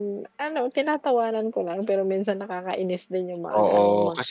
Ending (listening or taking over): taking over